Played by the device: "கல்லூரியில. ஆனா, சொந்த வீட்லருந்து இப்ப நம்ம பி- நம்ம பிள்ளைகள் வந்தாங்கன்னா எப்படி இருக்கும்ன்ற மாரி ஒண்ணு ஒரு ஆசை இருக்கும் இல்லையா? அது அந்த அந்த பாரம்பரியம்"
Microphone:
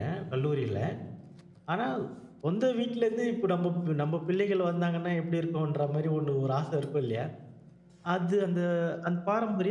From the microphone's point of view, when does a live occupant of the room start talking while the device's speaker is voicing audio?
none

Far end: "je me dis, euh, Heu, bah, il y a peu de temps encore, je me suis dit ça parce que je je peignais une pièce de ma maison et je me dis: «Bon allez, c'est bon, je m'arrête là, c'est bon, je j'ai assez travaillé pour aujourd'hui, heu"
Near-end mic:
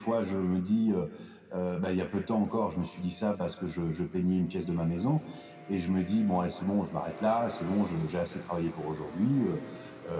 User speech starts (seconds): none

